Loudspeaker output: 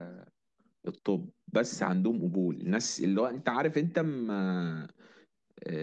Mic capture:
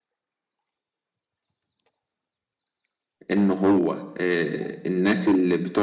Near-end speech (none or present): present